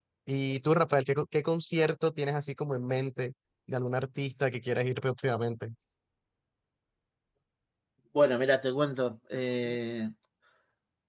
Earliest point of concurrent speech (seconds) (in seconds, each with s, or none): none